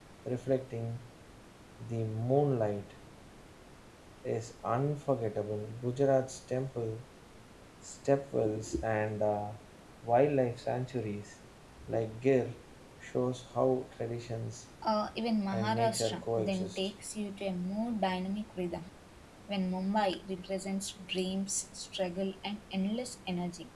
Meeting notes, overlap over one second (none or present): present